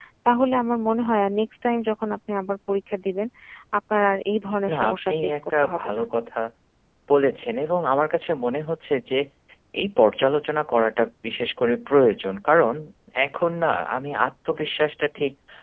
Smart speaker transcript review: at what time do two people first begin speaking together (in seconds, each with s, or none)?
4.7 s